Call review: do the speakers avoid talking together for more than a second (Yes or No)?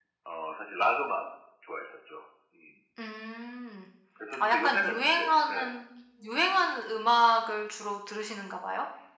No